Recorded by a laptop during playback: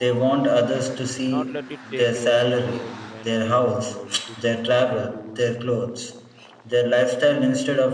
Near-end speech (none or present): present